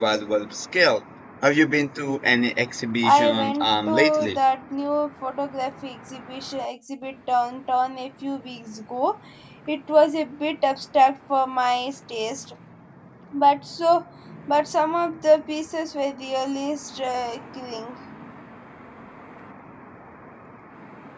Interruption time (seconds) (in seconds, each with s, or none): 3.0 s